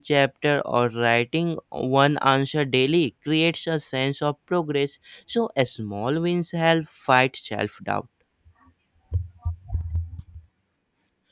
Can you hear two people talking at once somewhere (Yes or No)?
No